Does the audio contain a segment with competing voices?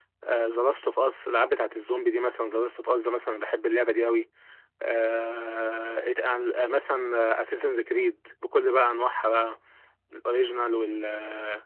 No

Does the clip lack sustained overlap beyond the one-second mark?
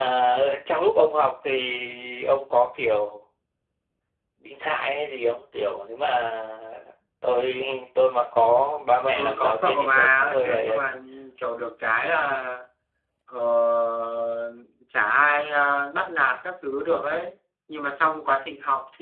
No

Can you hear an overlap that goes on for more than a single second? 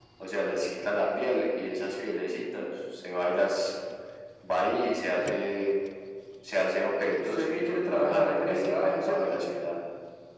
Yes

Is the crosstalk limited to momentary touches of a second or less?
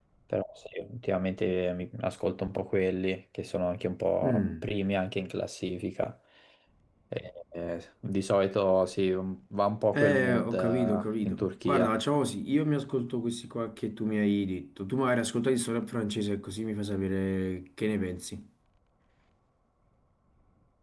No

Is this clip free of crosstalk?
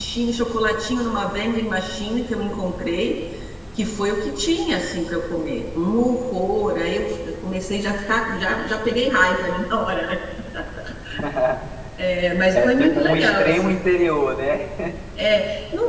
No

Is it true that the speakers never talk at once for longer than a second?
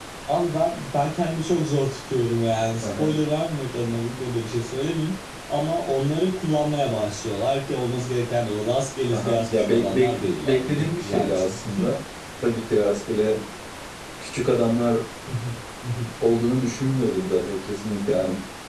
No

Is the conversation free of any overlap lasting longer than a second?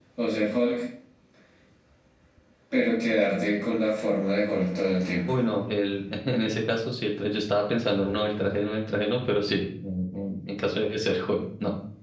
Yes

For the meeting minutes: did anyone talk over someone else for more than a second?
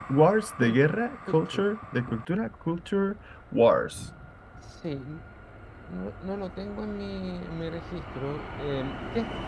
No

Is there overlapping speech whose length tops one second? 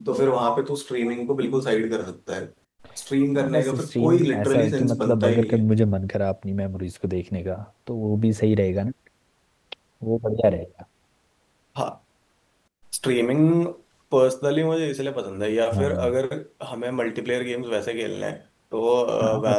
Yes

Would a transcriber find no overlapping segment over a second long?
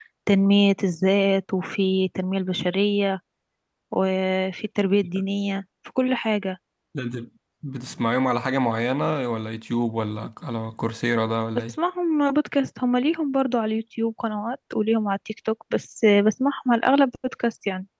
Yes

